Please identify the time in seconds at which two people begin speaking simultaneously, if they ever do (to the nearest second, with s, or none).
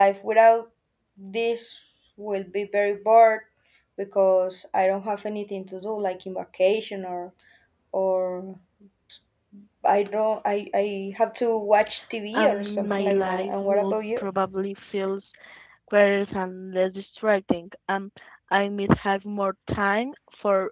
12 s